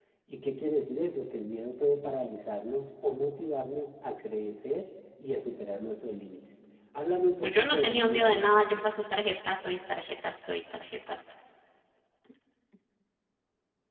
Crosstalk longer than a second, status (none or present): present